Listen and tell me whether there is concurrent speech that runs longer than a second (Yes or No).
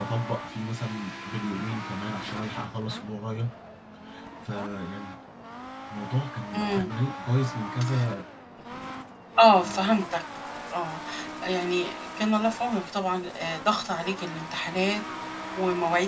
No